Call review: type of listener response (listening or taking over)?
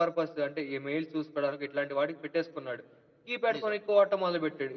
listening